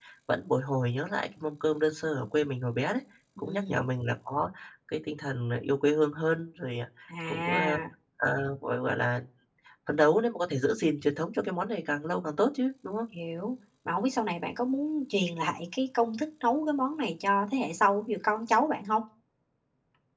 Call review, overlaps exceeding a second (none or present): none